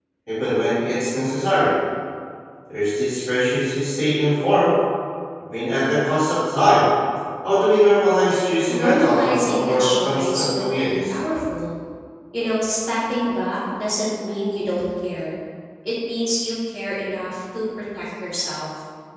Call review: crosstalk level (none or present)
present